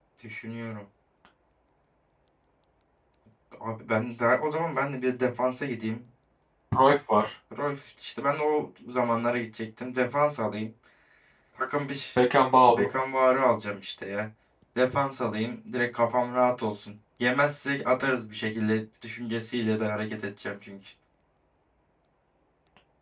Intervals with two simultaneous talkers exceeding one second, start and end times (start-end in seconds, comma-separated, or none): none